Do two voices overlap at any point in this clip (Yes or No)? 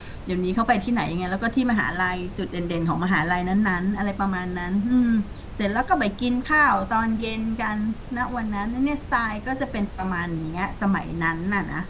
No